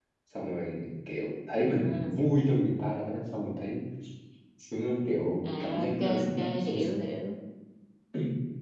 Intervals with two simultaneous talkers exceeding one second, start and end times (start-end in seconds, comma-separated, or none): 5.6-7.0